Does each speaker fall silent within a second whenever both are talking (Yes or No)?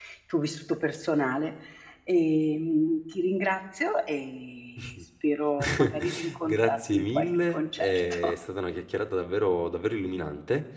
No